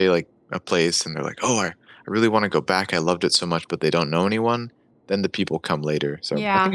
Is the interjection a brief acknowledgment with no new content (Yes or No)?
No